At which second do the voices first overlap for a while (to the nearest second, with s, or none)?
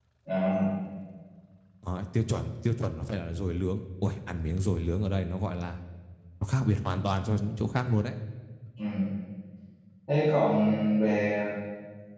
none